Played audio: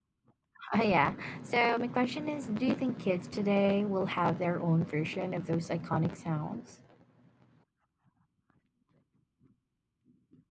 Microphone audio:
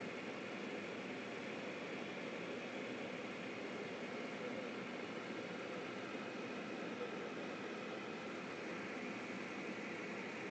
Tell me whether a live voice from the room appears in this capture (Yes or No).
No